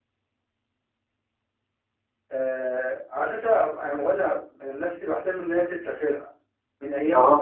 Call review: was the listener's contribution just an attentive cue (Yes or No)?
Yes